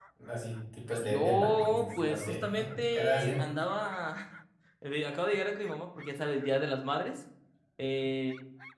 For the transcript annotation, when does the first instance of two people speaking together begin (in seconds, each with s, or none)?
1.0 s